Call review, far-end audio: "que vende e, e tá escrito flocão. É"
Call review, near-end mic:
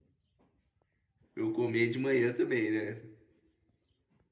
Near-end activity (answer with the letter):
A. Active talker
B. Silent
A